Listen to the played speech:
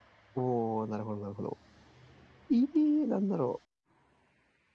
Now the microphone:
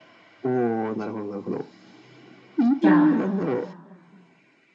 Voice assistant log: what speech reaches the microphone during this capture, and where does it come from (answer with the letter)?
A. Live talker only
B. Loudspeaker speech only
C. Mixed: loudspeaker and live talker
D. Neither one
C